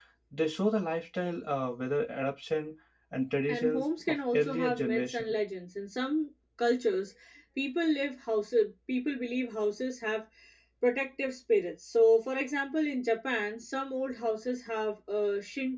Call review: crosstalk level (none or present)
present